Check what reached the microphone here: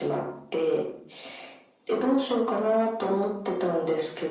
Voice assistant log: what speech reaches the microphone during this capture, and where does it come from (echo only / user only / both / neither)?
echo only